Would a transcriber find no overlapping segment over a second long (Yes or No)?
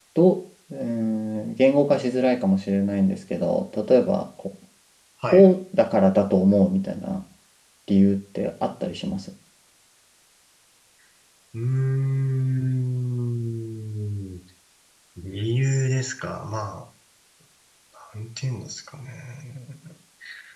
Yes